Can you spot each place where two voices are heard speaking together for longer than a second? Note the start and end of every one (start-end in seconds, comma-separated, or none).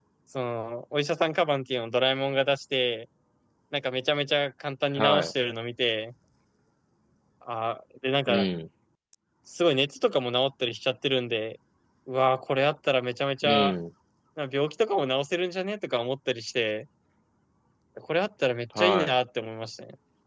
none